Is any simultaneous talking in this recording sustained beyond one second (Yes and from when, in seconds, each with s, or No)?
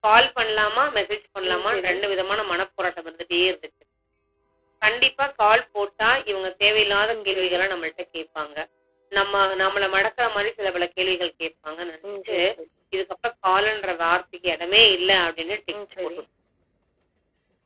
No